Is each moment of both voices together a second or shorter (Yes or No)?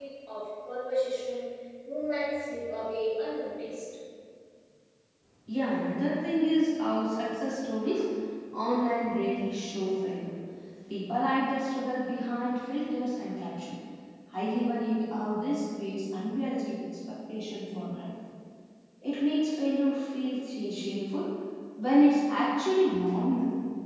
Yes